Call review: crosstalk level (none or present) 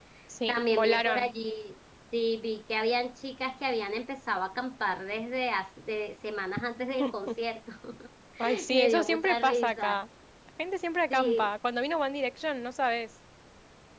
present